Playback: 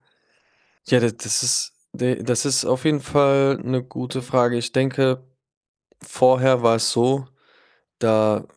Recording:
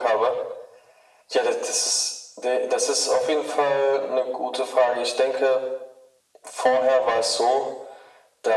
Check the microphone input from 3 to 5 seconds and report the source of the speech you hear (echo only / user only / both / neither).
echo only